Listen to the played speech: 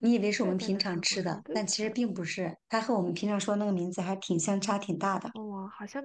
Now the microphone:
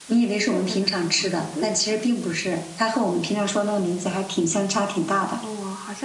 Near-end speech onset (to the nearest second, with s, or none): none